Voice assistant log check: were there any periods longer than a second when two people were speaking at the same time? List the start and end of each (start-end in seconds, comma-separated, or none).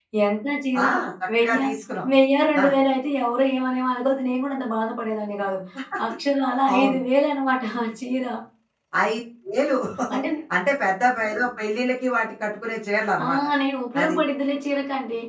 none